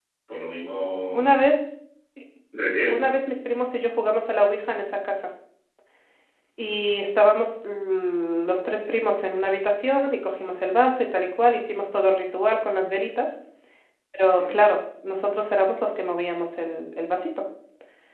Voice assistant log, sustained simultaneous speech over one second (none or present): none